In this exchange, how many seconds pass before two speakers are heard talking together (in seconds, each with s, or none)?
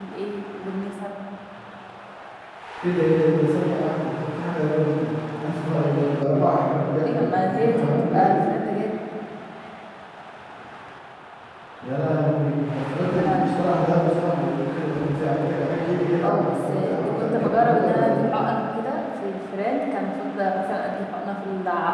7.0 s